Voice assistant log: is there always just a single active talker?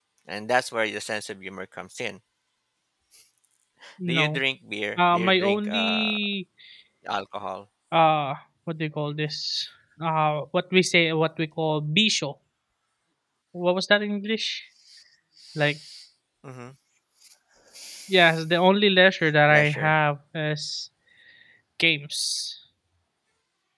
No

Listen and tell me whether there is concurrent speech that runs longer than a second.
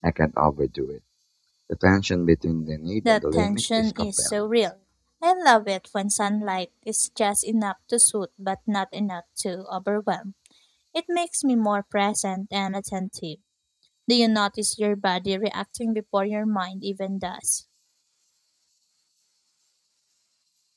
Yes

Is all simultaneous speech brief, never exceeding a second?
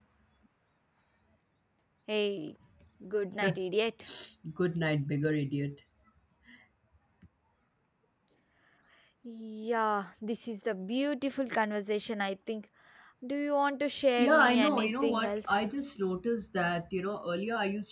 No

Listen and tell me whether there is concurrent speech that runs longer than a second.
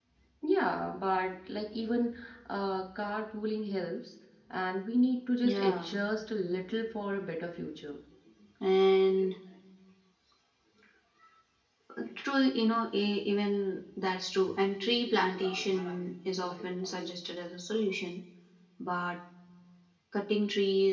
No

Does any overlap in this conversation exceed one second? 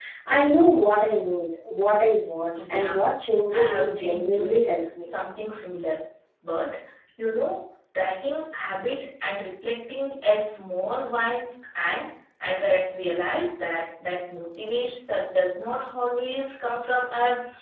Yes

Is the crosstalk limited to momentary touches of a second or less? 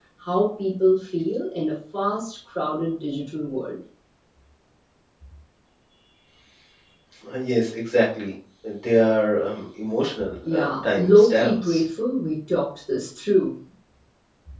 No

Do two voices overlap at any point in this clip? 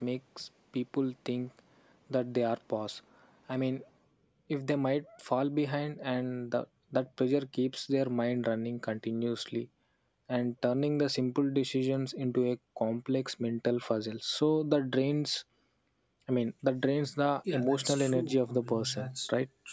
Yes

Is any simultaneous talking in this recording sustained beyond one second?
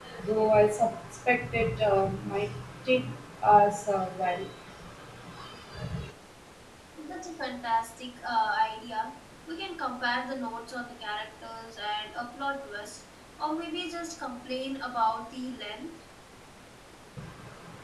No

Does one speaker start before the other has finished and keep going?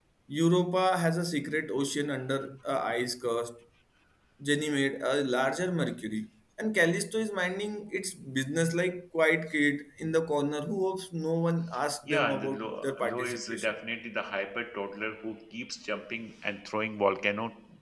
Yes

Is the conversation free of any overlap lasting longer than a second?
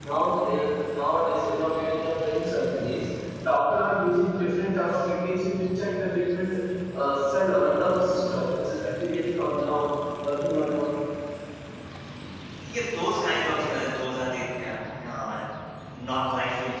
Yes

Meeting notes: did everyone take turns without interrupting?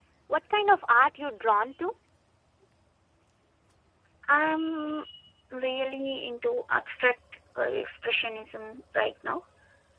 Yes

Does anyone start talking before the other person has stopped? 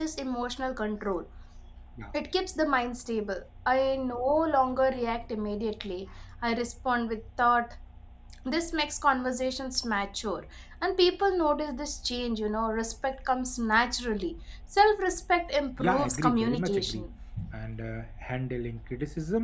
Yes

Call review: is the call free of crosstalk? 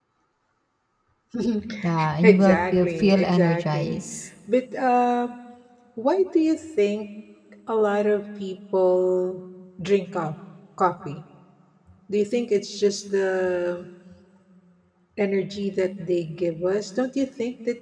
No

